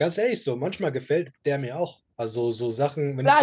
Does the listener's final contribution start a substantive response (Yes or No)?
Yes